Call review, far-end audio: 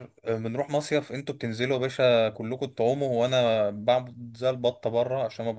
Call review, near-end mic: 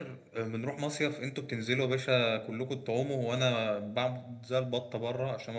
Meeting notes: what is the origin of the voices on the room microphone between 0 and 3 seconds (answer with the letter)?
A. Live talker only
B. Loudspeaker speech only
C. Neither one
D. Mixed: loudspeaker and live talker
B